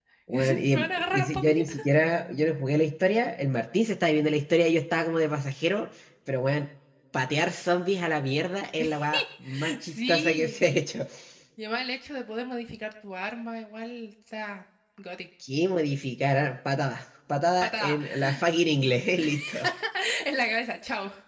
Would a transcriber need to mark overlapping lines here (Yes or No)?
Yes